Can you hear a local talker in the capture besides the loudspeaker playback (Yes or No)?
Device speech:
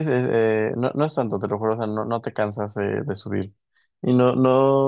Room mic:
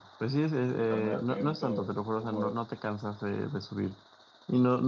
Yes